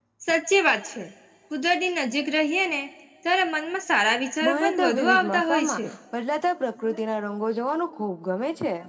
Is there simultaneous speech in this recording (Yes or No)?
Yes